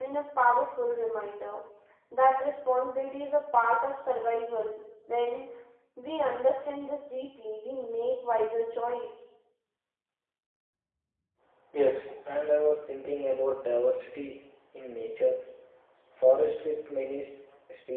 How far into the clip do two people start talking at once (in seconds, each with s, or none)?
none